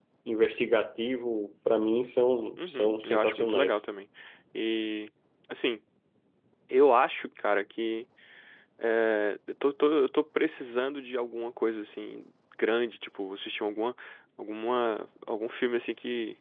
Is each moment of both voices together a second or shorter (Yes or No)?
No